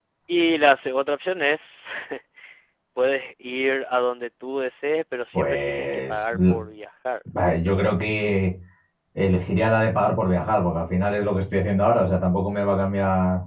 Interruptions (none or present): present